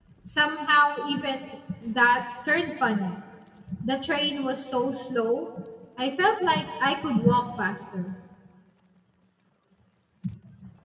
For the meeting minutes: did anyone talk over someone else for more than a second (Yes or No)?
No